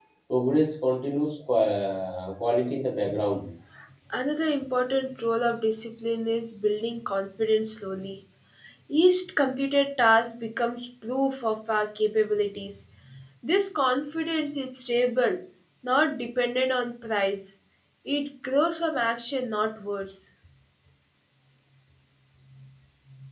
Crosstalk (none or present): none